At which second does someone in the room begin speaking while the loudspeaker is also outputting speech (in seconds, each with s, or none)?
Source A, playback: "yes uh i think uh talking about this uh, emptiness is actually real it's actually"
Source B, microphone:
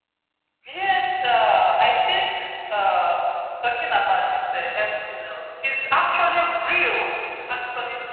none